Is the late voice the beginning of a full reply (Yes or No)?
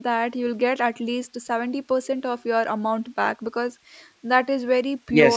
Yes